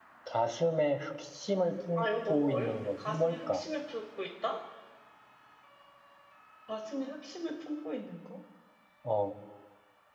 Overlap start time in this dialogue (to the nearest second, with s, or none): 2 s